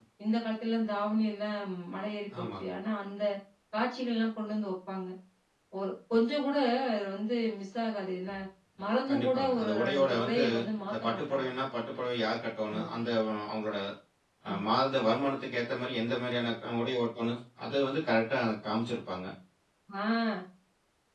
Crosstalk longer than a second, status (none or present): present